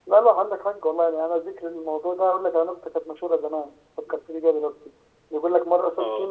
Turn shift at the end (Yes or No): No